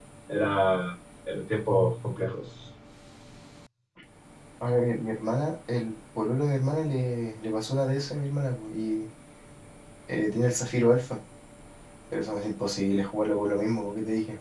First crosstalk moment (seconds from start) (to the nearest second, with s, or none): none